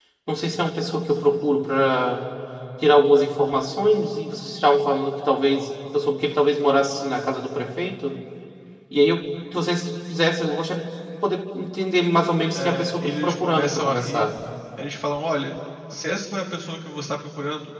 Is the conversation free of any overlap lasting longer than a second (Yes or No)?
No